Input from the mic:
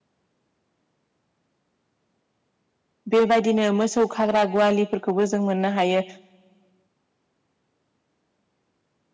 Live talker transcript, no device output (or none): बेबायदिनो मोसौ खाग्रा गुवालिफोरखौबो जों मोननो हायो